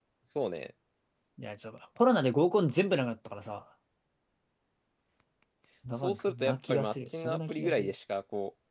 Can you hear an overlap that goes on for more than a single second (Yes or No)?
Yes